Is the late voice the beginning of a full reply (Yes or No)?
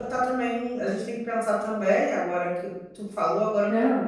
No